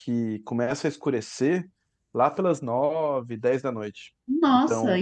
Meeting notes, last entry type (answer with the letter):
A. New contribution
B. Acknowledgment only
A